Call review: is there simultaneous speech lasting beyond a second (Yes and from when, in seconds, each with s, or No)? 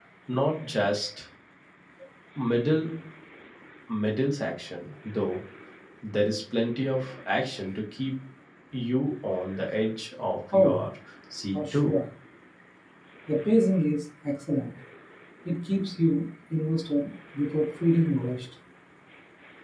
No